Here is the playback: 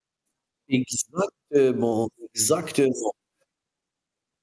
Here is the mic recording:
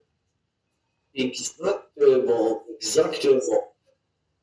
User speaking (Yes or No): No